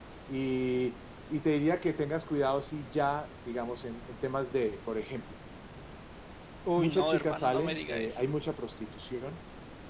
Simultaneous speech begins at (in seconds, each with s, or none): 6.8 s